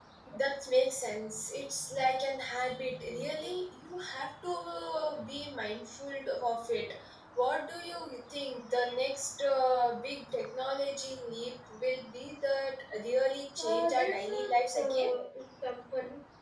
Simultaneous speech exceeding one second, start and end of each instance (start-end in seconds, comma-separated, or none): 13.6-15.1